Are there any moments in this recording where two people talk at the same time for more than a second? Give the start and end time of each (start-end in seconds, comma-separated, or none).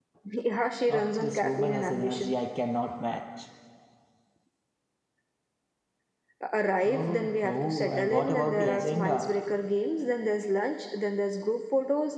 0.9-2.4, 6.8-9.3